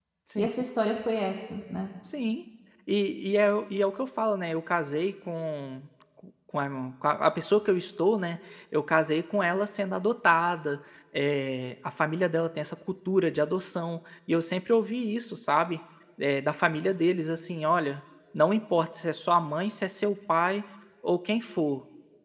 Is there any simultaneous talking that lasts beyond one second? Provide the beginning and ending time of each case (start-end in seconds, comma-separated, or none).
none